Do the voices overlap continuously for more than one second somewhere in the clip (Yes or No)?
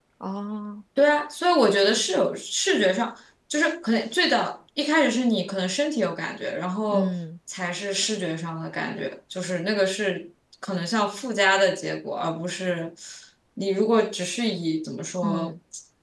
No